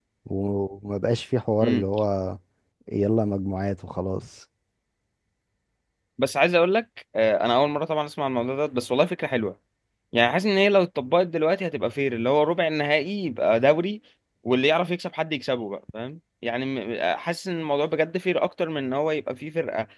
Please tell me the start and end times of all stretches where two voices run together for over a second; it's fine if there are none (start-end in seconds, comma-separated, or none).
none